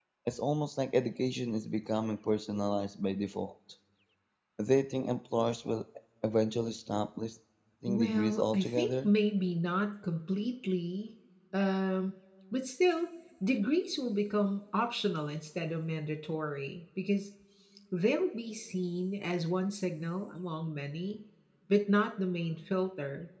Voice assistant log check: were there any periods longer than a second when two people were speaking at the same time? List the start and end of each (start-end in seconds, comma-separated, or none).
7.9-9.1